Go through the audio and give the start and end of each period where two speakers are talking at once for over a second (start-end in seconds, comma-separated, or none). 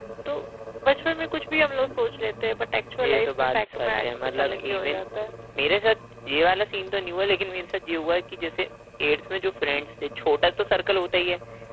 3.0-5.0